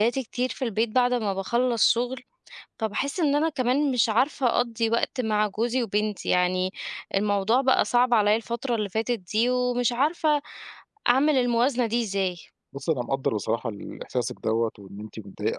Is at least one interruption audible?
No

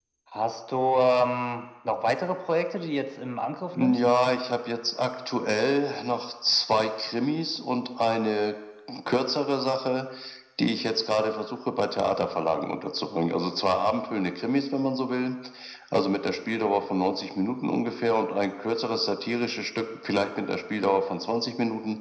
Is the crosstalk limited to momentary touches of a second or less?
Yes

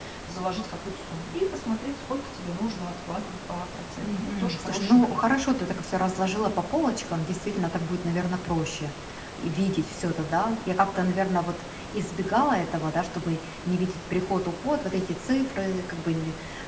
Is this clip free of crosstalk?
No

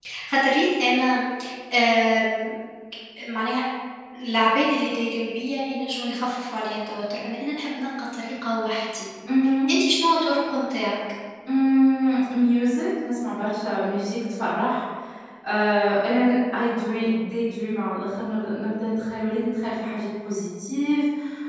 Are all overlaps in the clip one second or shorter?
Yes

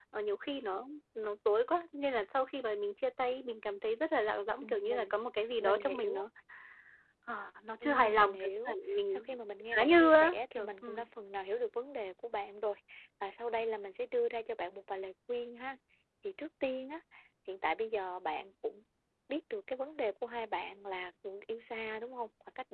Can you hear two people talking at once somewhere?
Yes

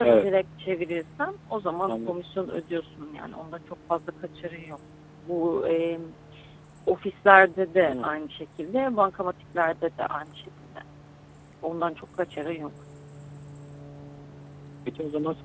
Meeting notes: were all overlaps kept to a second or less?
Yes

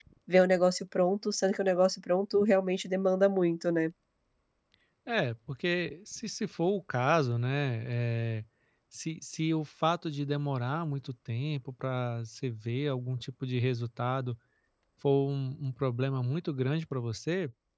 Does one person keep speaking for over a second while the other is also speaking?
No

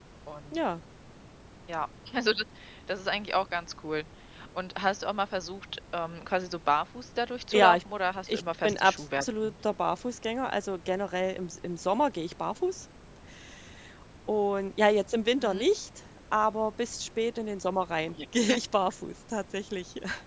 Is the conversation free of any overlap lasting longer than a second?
No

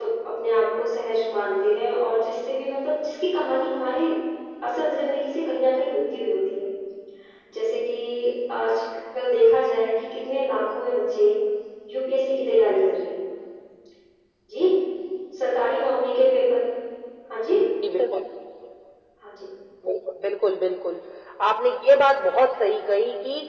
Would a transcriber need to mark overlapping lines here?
No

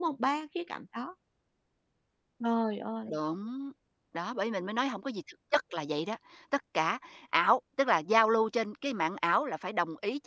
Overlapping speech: No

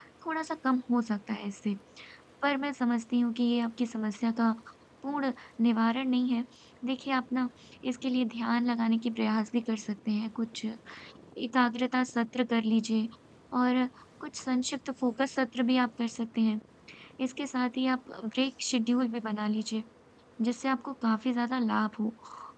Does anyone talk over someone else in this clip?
No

